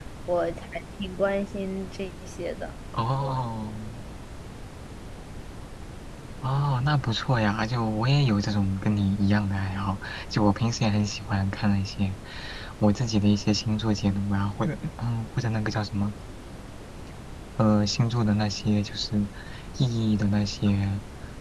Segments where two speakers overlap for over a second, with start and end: none

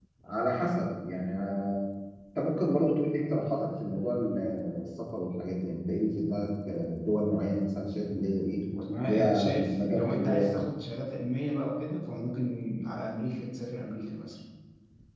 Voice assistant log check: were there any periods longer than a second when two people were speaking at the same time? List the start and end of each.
9.0-10.6

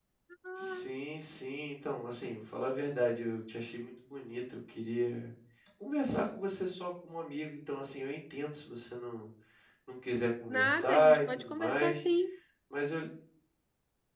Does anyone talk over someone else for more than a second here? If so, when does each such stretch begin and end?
10.5-12.0

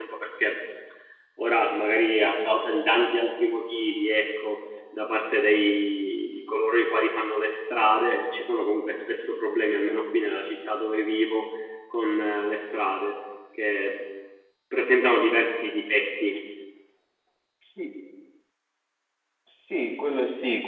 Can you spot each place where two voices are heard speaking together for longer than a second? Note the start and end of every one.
none

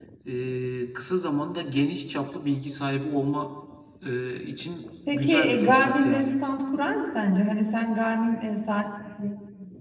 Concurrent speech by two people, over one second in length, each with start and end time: 5.1-6.3

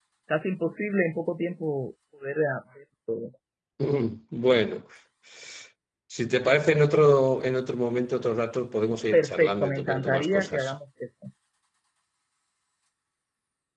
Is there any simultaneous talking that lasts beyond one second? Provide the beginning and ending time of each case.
9.1-10.7

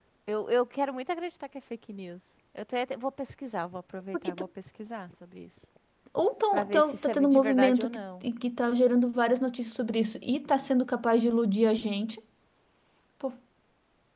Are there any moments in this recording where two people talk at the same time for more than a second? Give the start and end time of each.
6.5-8.2

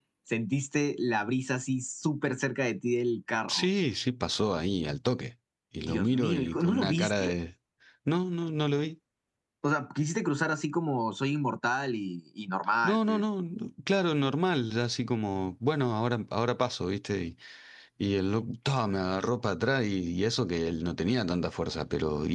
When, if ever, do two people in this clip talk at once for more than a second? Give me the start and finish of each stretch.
5.8-7.3

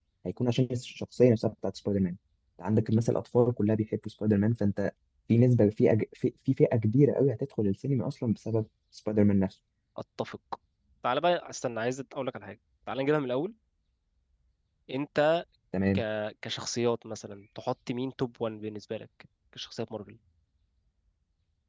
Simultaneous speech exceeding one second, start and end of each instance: none

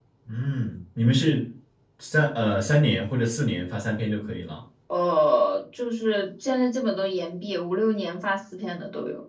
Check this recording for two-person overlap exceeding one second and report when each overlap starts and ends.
none

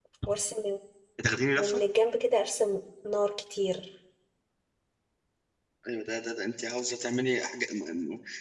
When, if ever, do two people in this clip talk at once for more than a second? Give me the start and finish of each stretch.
none

